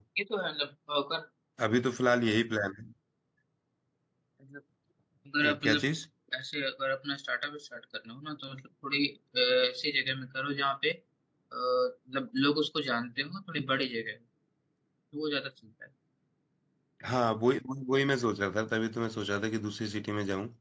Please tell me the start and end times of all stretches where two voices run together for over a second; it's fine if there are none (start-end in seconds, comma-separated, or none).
none